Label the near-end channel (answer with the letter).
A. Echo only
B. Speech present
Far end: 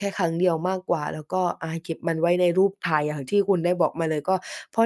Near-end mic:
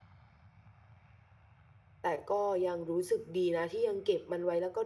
B